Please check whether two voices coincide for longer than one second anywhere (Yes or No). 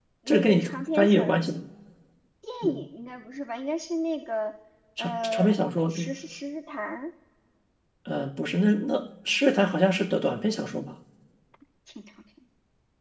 Yes